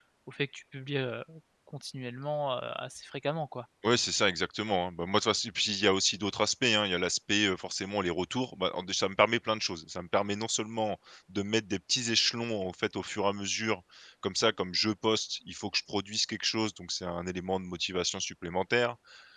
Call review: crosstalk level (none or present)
none